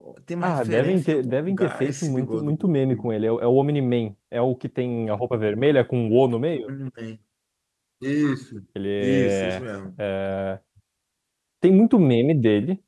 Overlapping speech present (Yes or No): Yes